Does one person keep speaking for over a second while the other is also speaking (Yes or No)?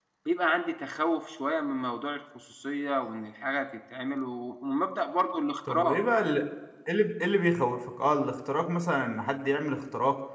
No